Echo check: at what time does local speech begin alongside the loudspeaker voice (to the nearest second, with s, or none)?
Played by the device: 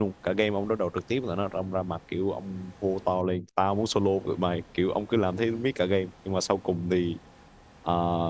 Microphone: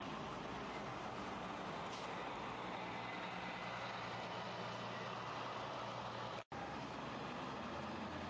none